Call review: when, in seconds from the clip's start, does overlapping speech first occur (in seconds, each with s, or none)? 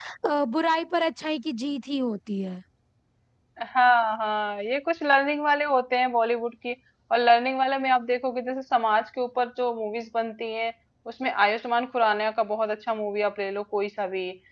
none